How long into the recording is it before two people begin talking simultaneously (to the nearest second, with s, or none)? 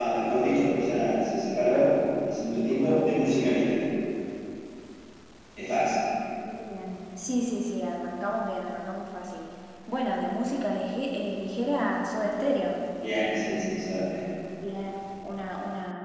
none